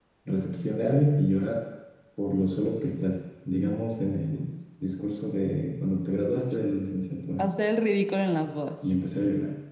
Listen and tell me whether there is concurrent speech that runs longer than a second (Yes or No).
No